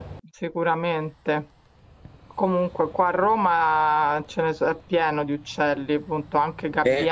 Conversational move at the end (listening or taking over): listening